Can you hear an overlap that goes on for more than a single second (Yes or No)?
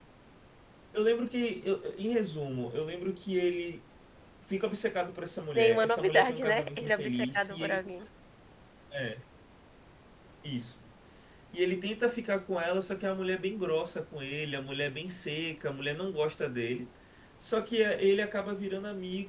Yes